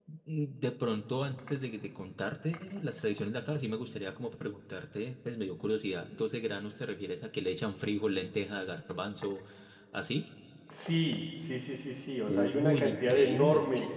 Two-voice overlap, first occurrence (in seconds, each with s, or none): 12.3 s